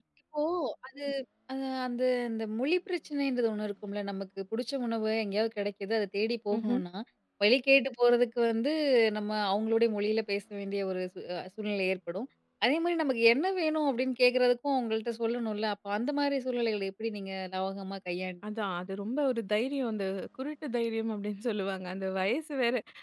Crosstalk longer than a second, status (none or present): none